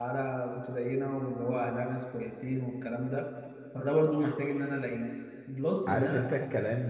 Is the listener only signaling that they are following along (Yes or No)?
No